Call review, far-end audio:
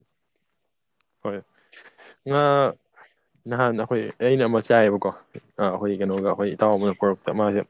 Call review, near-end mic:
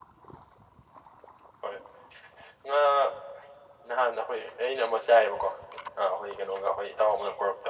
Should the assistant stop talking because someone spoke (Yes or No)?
No